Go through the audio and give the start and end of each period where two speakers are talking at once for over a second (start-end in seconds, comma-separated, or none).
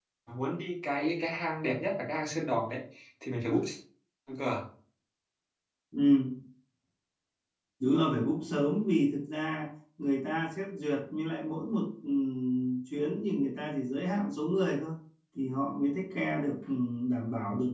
none